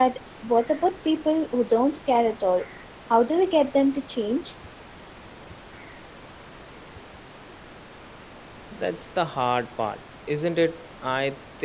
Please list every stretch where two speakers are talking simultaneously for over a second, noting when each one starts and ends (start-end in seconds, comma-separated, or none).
none